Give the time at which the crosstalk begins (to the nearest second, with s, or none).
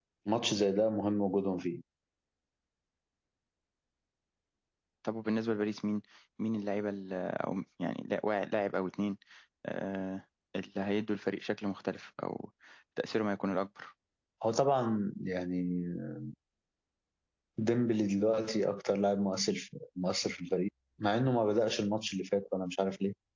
none